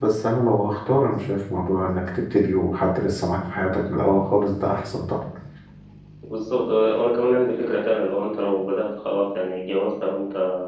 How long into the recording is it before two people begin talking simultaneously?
none

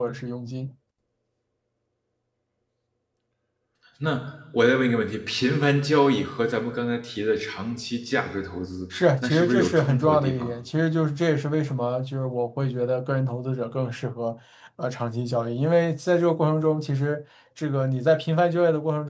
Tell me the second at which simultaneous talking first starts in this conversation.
9 s

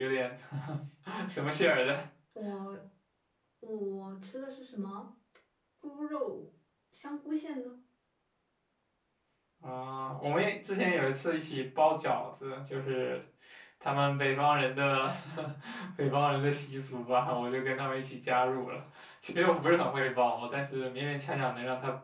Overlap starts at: none

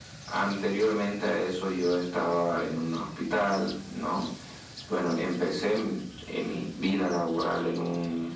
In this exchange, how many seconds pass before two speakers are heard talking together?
none

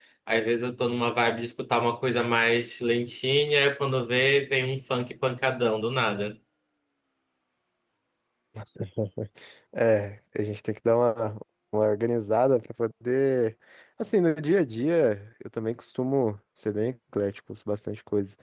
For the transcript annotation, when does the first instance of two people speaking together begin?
none

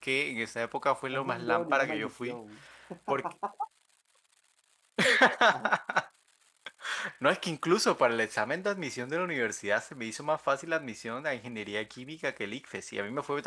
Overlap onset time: 1 s

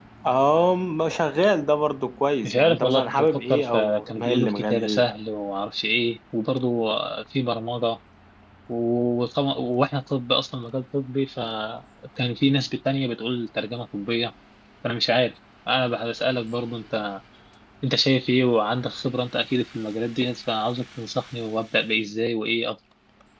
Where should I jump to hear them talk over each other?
2 s

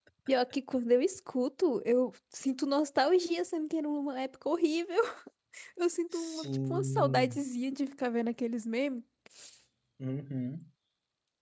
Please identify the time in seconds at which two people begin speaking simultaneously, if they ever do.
6 s

